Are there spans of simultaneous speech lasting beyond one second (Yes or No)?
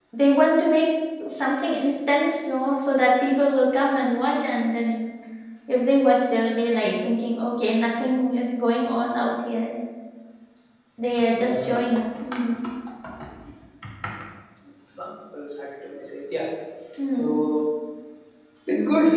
No